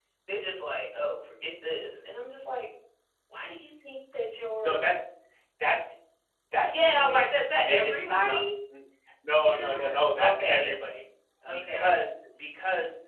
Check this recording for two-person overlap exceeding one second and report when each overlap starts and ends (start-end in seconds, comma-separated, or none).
6.6-8.4, 9.4-10.8